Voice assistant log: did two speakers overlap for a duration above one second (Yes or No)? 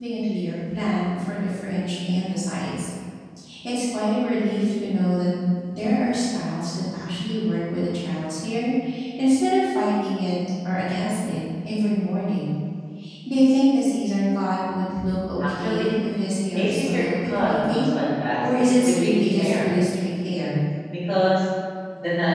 Yes